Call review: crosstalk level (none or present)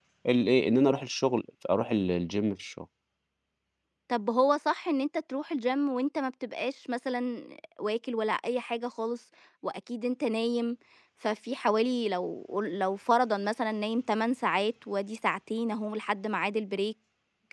none